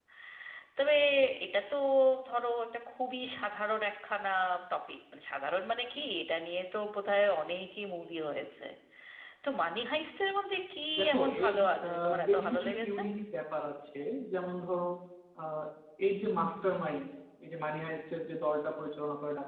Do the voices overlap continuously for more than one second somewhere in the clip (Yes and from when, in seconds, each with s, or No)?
Yes, from 11.0 s